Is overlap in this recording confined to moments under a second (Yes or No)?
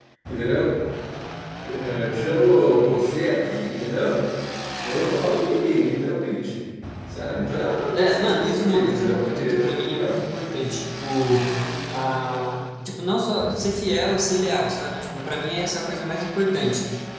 No